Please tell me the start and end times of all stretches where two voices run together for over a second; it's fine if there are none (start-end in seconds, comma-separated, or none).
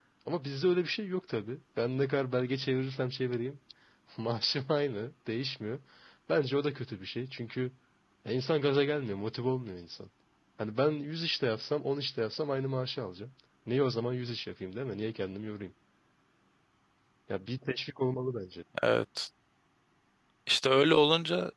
none